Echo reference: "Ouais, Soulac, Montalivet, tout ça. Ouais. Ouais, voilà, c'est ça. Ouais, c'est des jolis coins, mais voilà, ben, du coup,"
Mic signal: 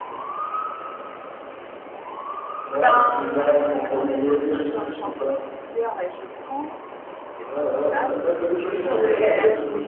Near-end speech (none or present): present